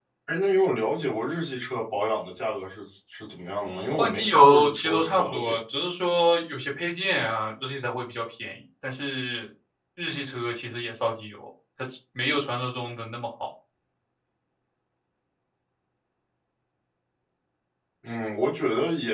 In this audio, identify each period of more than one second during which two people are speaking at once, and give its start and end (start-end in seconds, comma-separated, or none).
3.6-5.6